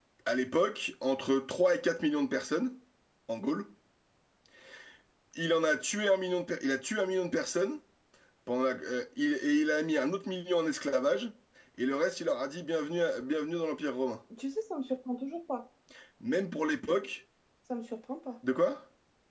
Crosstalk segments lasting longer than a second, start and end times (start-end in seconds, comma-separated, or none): none